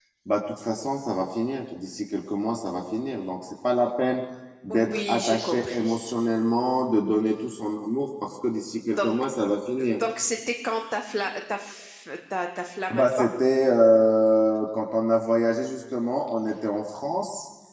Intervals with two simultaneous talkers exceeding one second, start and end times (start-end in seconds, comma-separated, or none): 4.7-6.1